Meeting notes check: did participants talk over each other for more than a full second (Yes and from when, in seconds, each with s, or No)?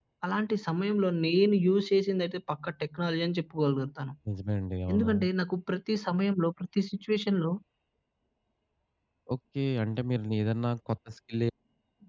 No